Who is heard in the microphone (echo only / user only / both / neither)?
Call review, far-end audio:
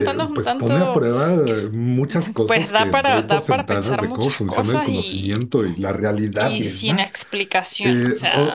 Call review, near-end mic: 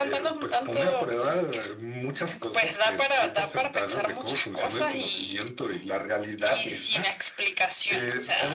echo only